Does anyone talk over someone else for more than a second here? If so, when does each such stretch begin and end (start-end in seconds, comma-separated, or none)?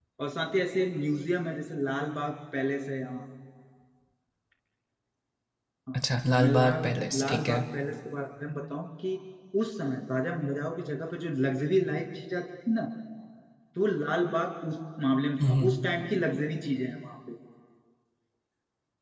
6.4-7.6